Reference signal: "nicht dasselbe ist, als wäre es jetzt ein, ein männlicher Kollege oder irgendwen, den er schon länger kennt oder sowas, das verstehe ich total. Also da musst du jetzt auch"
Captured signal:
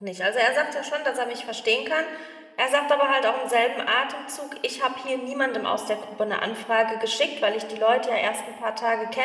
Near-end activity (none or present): present